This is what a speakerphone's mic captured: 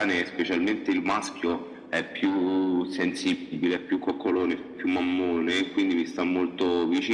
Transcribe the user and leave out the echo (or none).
none